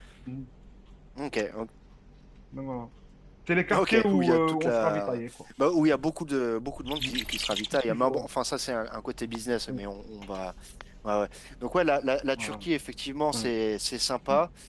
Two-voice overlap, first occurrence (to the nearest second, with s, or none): 4 s